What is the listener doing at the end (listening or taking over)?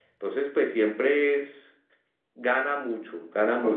listening